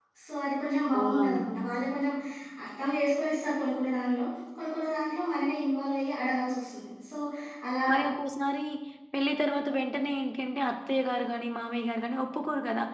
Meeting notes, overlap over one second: none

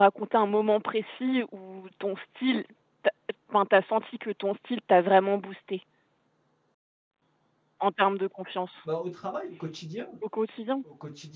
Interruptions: none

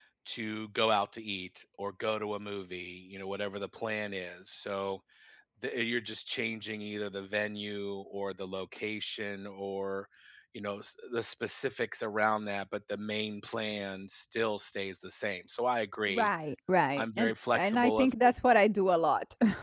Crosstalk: present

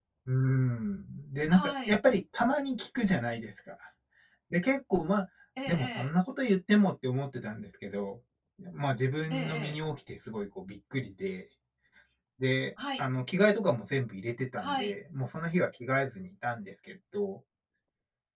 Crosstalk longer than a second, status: none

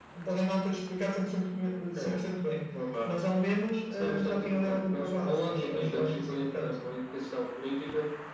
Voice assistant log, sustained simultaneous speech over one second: present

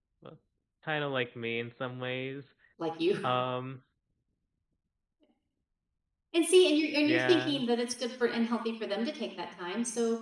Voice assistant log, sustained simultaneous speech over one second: none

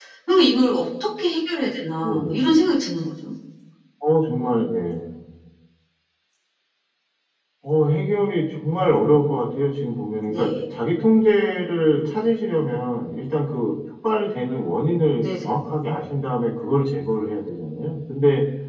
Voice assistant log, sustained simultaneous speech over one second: none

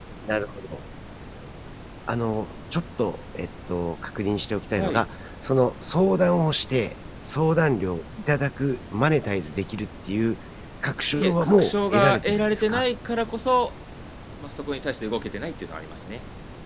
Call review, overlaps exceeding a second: present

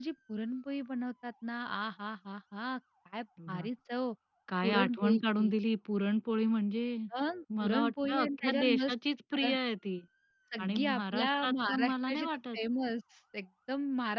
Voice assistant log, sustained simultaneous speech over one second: present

